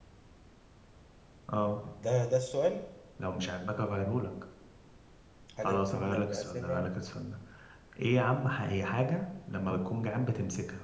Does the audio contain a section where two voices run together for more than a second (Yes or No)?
Yes